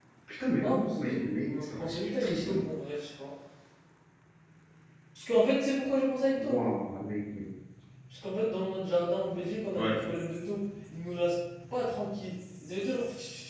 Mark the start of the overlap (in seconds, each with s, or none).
0.5 s